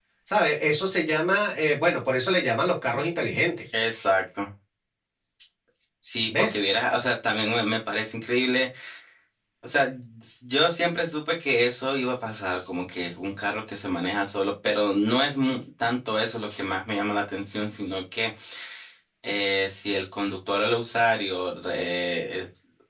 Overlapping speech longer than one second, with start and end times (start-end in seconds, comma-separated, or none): none